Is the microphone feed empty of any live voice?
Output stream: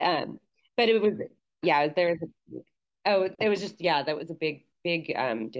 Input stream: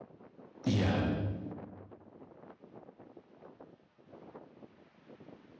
No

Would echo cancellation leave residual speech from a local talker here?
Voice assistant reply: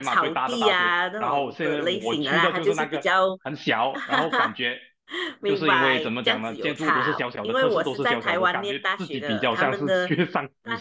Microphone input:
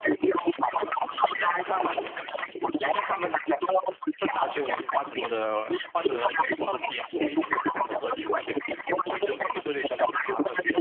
Yes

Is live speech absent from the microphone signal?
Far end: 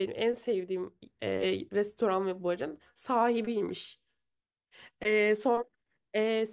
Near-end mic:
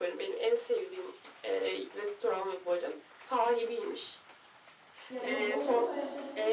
No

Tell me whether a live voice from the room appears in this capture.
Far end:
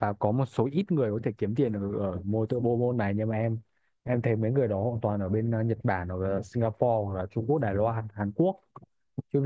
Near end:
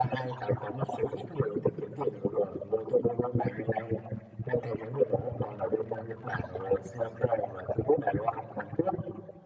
No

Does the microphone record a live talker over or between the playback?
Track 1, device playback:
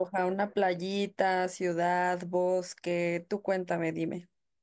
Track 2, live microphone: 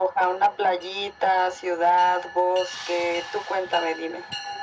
No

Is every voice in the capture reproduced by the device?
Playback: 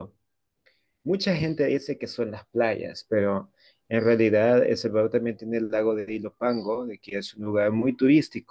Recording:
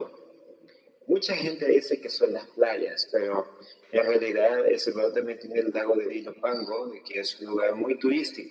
Yes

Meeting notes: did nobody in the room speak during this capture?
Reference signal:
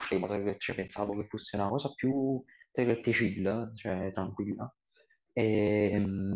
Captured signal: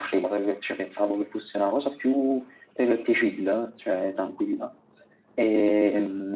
Yes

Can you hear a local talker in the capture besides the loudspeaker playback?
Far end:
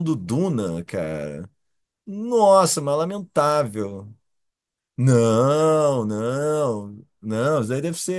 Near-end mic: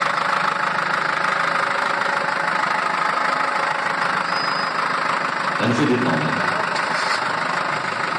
Yes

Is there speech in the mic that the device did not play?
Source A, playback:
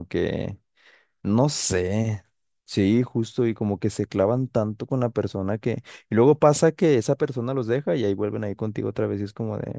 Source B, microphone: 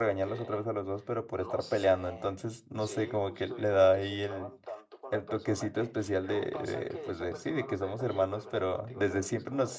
Yes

